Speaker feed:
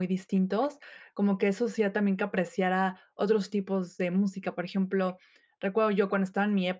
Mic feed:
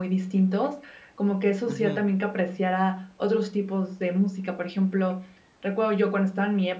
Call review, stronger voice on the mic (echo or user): echo